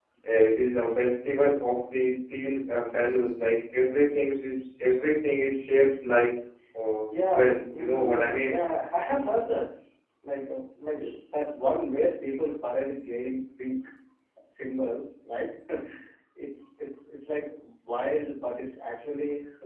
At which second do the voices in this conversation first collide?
7.1 s

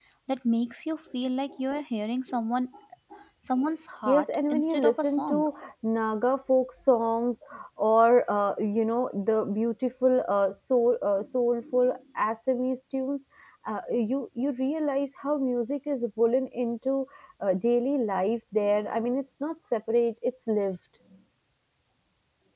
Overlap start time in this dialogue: 4.0 s

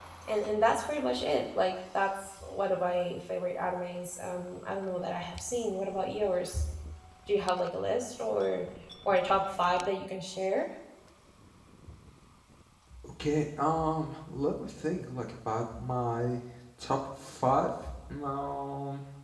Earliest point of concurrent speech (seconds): none

